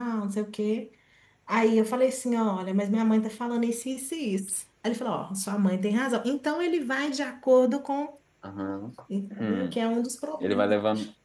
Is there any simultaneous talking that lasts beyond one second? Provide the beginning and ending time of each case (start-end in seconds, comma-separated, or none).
none